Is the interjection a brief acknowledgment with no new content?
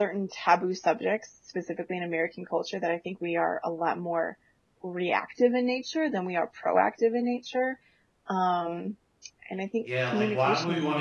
No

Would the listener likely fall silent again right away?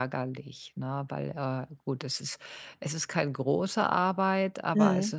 Yes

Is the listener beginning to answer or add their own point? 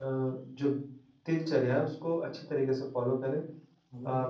No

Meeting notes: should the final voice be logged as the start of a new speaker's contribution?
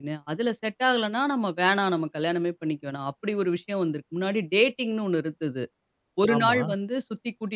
No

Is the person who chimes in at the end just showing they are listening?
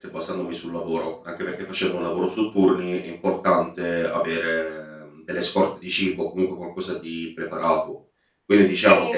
Yes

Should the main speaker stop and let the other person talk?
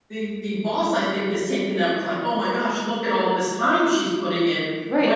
Yes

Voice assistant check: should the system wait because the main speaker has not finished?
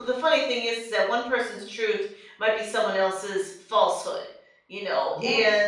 Yes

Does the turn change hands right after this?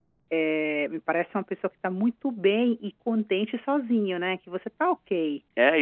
Yes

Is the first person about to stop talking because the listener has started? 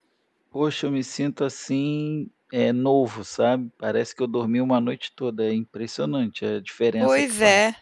Yes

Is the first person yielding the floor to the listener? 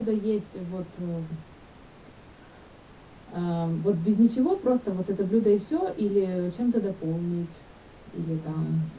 Yes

